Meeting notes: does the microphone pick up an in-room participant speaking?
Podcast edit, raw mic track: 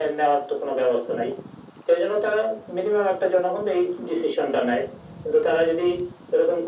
No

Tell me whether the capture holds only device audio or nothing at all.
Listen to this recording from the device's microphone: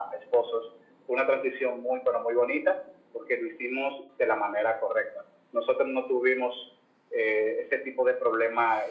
Yes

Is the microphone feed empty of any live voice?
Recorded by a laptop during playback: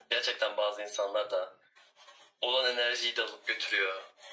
Yes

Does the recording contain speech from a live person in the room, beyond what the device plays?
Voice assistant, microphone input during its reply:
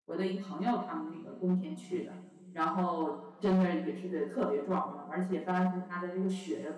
Yes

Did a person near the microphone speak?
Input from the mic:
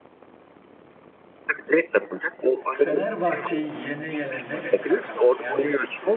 Yes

